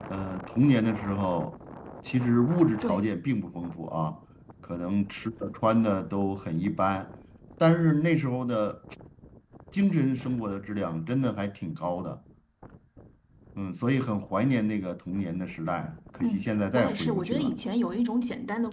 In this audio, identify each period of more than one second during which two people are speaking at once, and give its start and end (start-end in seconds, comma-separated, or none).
16.2-17.5